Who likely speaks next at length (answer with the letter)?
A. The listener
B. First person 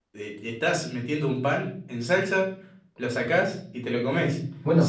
B